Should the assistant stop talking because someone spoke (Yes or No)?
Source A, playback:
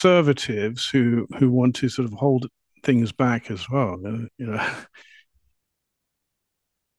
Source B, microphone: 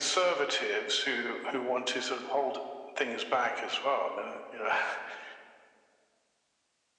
No